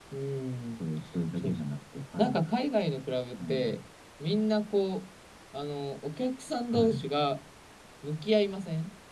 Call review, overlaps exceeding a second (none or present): none